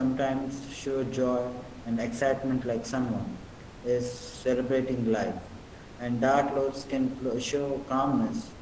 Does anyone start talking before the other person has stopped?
No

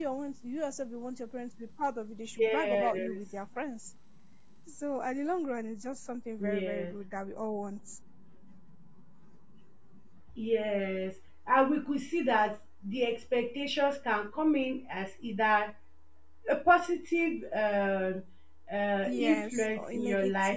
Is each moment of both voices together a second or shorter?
No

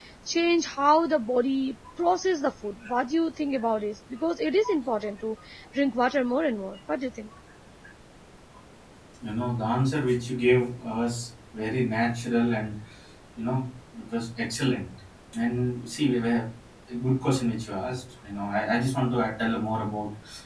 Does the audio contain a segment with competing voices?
No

